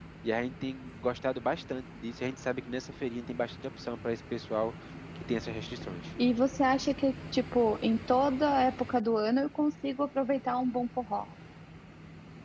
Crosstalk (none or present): none